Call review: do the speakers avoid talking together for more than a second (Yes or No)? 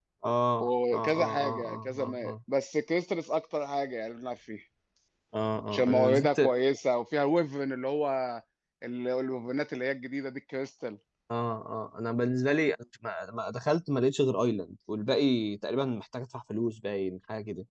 No